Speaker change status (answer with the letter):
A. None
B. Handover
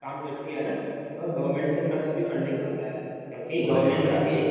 A